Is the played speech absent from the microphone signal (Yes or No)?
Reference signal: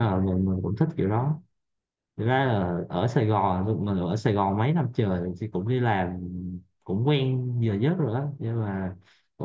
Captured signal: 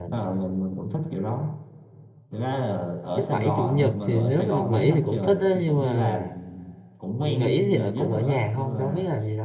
No